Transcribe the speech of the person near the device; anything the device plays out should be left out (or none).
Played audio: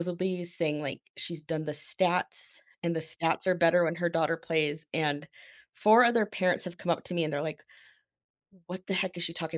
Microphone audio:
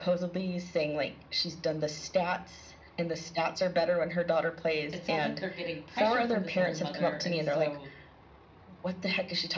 it sounds like they're getting pressure from this other mother, and so,